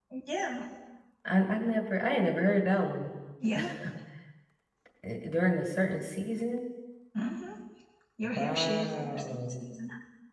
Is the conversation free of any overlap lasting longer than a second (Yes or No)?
No